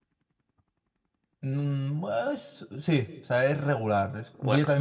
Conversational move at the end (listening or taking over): listening